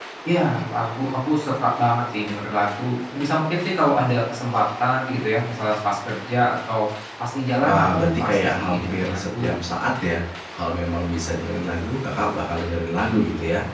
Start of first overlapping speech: 7.6 s

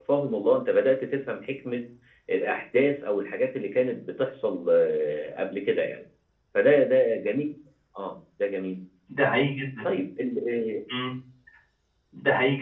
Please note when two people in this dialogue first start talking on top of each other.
none

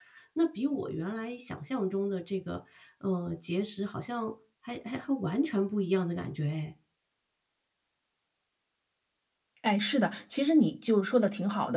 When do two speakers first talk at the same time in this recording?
none

